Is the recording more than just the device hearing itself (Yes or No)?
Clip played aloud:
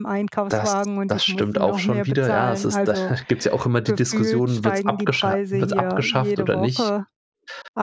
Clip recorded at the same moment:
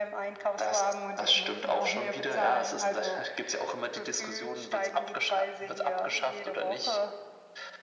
No